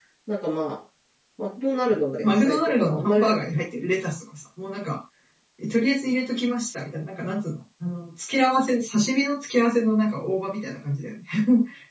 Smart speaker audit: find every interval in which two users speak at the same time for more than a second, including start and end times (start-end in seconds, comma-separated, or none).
2.2-3.6